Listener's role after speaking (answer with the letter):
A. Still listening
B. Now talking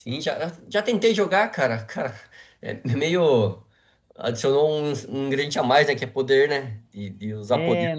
B